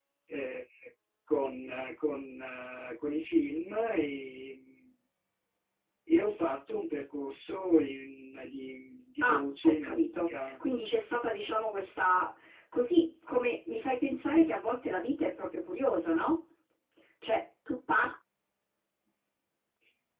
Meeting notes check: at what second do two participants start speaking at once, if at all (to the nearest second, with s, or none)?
9 s